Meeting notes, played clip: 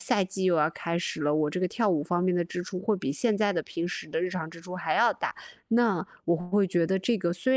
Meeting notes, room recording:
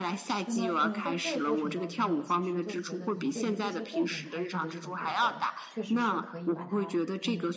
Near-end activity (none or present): present